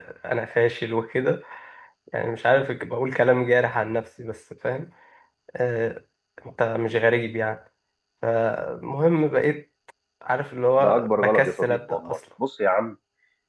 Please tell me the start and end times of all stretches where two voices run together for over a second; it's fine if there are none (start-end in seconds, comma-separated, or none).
10.8-12.2